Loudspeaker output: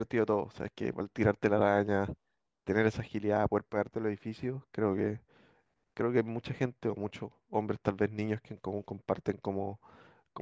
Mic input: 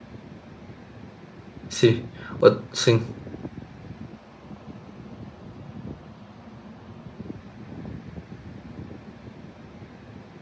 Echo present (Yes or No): No